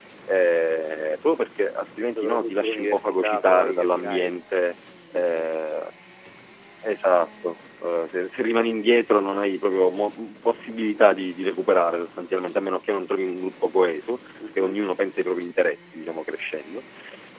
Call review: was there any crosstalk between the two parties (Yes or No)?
Yes